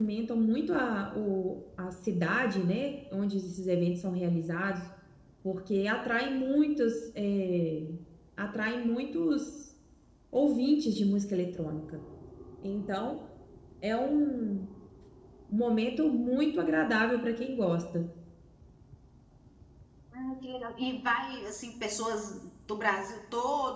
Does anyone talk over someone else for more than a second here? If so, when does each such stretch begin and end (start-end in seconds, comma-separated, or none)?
none